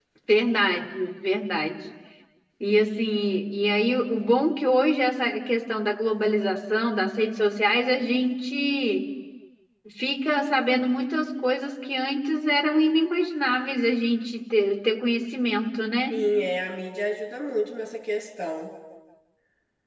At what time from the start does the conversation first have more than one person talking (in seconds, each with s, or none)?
none